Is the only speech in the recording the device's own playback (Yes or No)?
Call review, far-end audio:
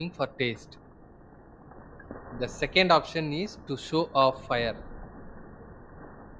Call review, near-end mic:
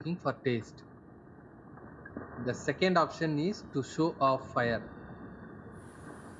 Yes